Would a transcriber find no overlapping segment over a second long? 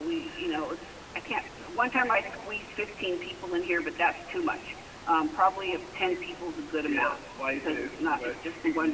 No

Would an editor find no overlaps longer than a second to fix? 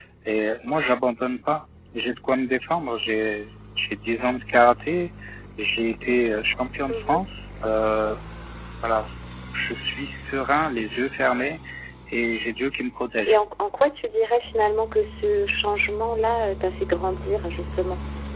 Yes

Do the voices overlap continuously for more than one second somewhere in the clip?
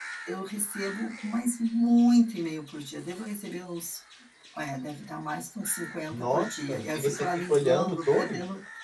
Yes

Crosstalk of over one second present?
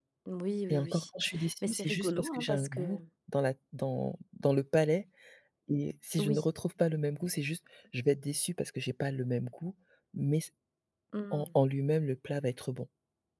Yes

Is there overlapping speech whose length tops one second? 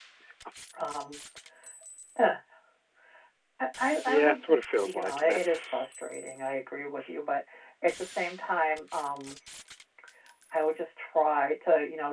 Yes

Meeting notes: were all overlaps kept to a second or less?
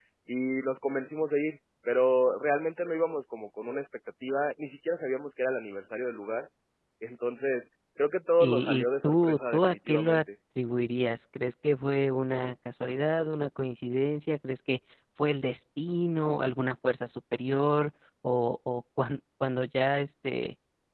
No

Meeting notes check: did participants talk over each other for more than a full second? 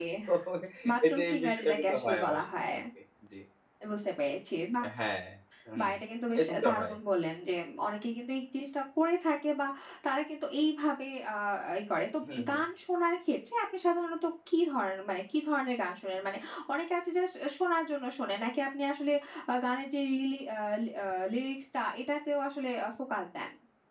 Yes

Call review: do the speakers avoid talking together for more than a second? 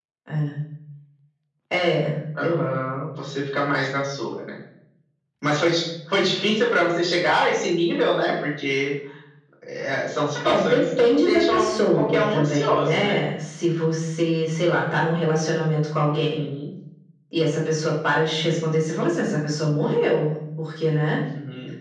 No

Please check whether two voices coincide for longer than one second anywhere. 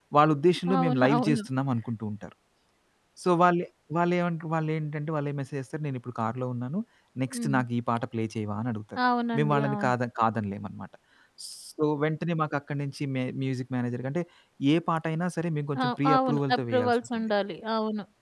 Yes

